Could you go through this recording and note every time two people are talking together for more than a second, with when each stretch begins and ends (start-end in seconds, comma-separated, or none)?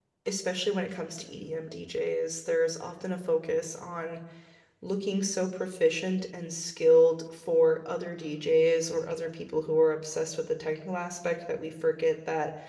none